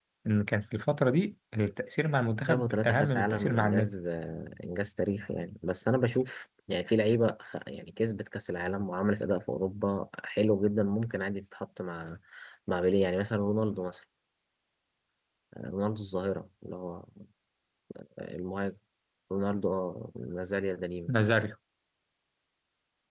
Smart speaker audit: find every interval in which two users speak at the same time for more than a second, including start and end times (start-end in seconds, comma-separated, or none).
2.5-3.9